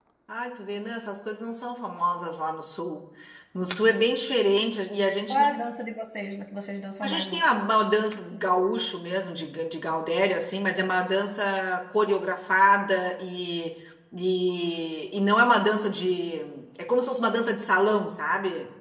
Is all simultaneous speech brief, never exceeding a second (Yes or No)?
Yes